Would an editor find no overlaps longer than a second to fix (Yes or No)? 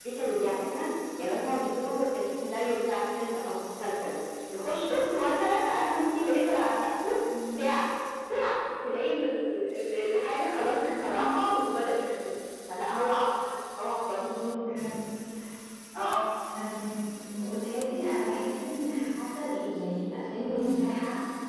Yes